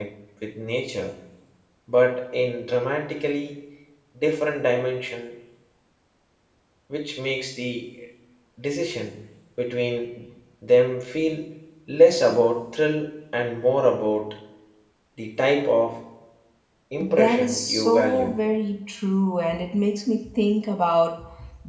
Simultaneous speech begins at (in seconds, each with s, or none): 17.0 s